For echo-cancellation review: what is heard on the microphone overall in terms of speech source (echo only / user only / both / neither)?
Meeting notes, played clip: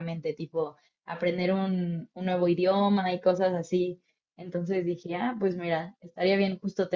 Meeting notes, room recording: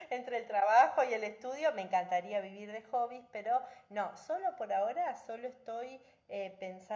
user only